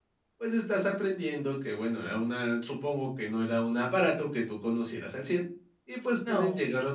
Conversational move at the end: listening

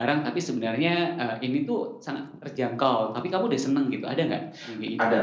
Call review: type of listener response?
taking over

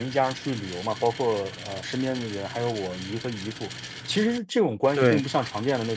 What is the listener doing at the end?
listening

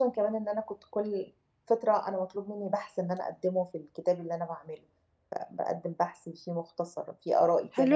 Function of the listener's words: taking over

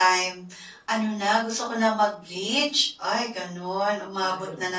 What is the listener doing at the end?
listening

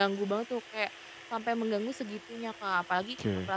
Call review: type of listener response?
listening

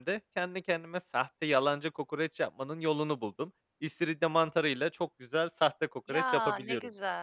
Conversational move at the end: taking over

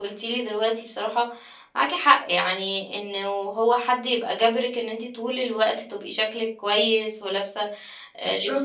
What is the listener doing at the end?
listening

